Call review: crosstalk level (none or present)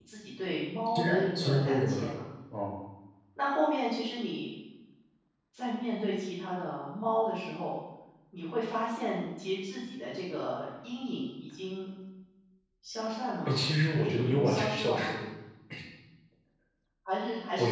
present